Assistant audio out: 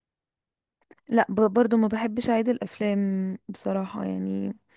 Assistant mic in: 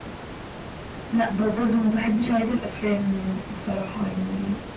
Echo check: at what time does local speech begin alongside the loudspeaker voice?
none

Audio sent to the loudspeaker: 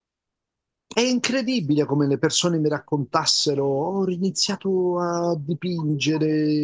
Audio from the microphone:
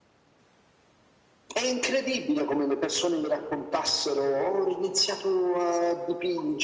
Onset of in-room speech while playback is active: none

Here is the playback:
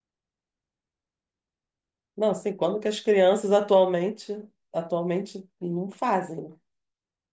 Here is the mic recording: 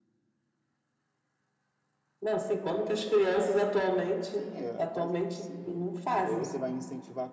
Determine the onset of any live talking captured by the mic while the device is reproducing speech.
4.3 s

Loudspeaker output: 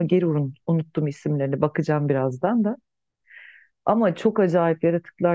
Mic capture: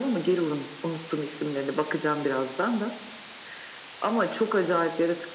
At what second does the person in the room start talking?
none

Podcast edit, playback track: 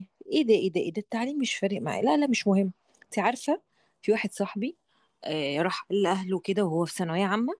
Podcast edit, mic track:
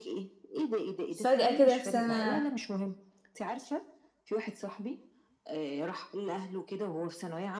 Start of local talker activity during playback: 1.2 s

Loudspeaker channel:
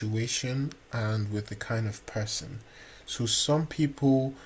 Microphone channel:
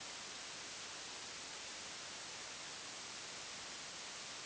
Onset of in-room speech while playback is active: none

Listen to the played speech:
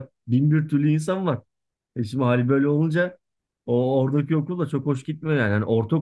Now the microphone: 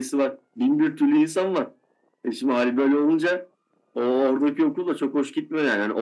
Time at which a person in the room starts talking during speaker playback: none

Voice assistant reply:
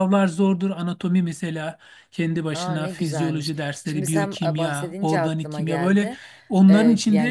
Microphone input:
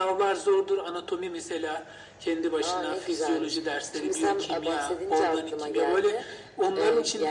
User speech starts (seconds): none

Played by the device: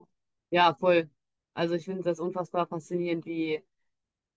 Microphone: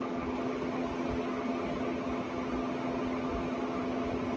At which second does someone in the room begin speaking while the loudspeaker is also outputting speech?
none

